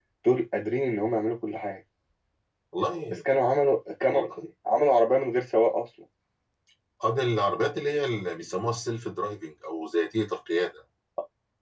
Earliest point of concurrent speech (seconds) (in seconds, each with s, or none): none